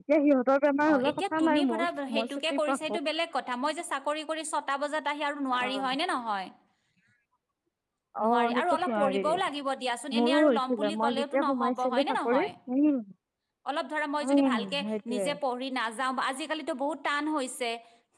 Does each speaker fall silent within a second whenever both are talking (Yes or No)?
No